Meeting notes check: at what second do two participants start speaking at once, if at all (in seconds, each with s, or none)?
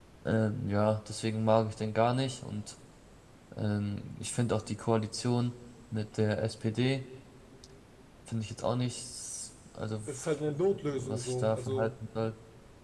10.1 s